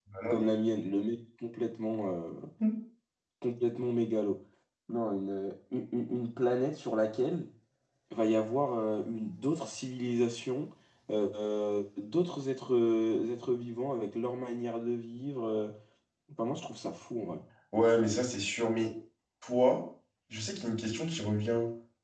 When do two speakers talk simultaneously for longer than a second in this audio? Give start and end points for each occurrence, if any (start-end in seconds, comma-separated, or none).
none